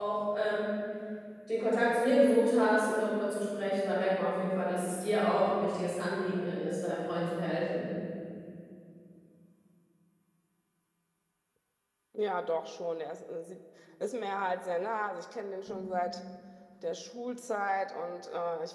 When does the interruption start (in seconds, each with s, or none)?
none